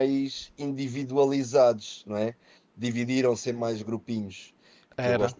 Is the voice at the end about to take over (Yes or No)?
No